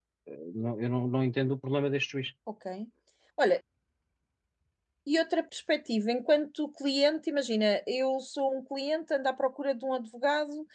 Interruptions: none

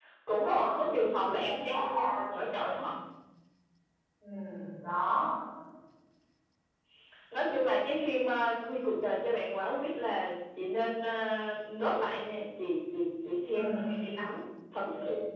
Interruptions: present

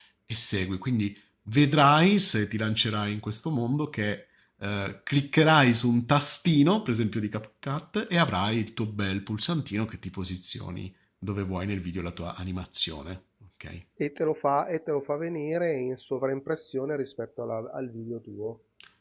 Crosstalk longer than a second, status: none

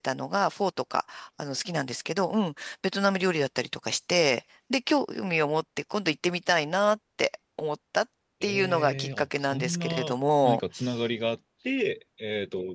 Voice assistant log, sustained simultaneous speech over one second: present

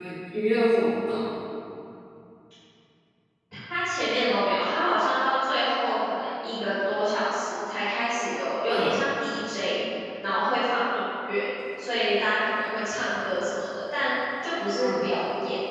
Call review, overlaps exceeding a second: none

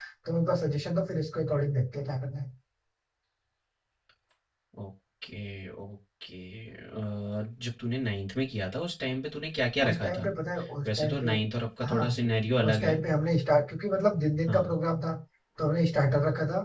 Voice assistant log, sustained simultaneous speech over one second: none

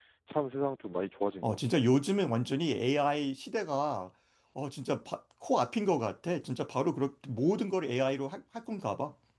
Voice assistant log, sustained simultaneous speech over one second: none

